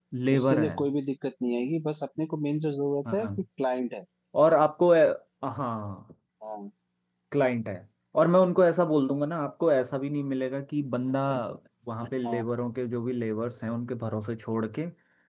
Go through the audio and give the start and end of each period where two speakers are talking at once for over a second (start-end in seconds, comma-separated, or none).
none